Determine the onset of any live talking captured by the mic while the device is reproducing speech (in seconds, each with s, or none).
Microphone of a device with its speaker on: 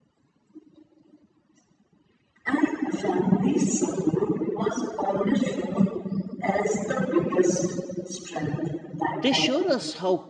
9.1 s